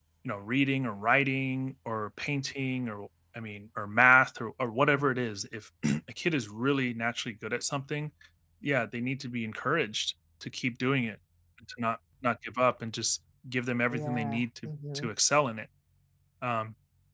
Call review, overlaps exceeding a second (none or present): present